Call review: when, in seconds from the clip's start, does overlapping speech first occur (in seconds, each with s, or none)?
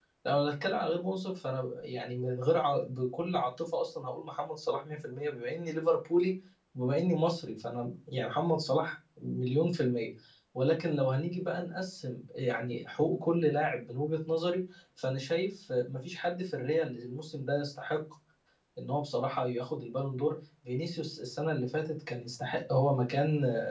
none